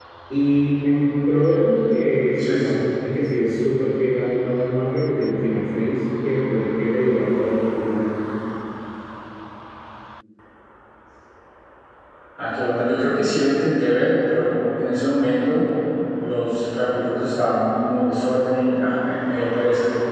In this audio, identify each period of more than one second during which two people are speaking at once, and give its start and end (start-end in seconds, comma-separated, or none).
none